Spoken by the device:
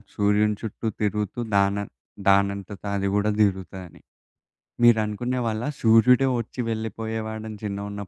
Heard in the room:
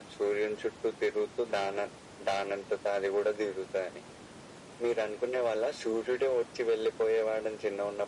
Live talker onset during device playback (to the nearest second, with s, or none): none